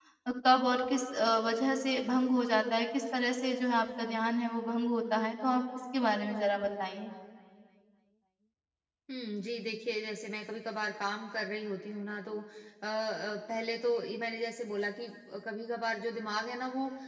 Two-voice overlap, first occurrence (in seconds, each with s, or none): none